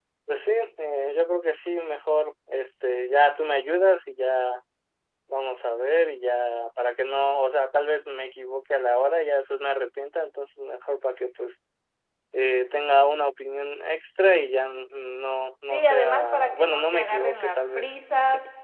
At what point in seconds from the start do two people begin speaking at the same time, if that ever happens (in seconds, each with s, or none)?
15.6 s